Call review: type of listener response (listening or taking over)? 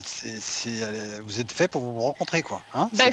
taking over